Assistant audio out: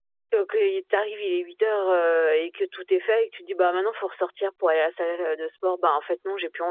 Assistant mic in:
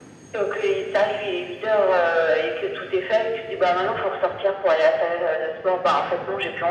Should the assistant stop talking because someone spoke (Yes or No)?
No